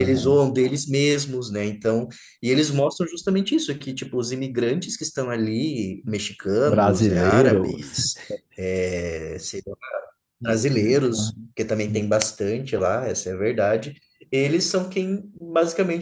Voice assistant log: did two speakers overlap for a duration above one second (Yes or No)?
Yes